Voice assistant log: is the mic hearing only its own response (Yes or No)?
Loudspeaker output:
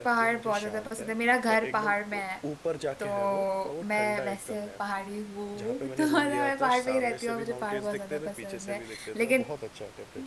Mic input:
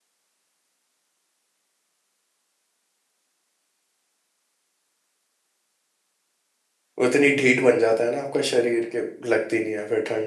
No